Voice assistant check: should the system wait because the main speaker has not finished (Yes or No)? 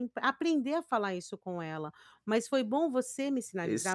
Yes